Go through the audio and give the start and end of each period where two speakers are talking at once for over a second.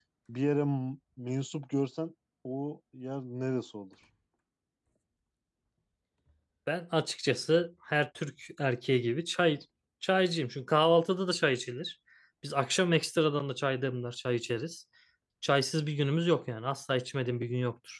none

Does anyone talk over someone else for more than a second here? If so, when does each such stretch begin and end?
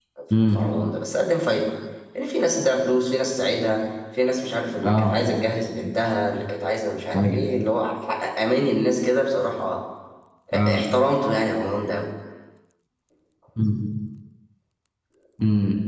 none

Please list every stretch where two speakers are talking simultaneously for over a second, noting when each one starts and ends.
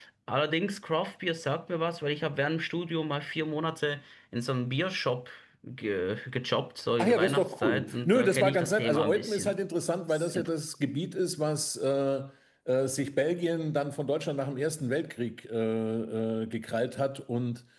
7.0-9.6

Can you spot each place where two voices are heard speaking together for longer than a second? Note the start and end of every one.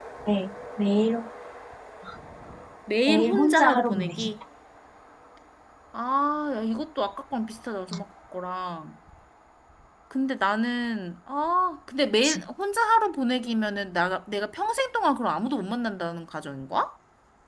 3.1-4.3

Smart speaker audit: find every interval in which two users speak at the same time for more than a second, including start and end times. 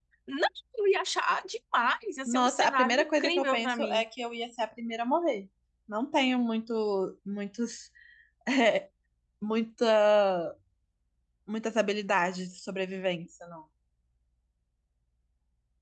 2.3-4.0

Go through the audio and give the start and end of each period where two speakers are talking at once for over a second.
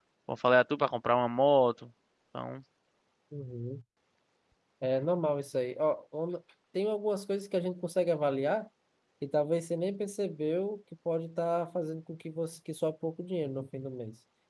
none

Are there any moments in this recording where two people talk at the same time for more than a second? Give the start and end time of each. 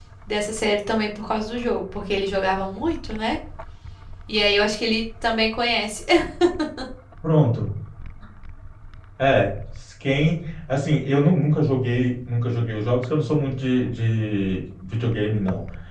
none

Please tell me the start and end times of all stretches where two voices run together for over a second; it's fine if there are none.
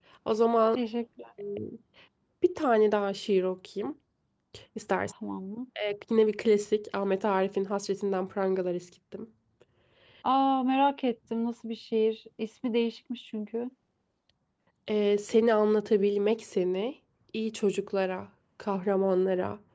none

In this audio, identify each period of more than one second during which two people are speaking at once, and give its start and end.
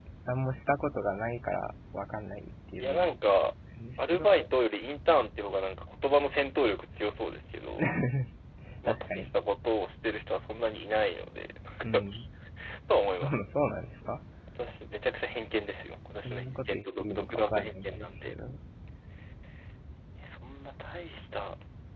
16.2-18.3

